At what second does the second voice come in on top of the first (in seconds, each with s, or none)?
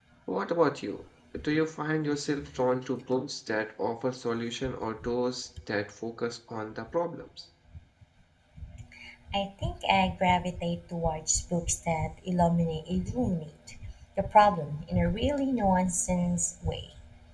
none